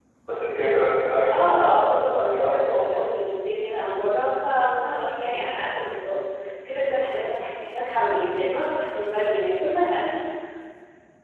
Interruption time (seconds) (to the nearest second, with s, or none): 1 s